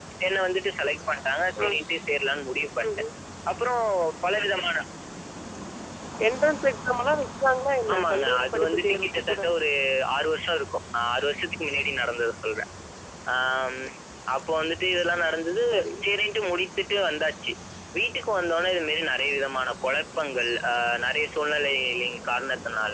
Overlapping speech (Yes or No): Yes